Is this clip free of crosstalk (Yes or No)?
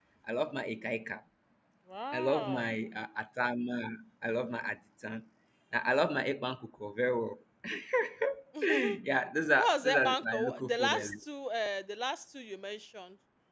No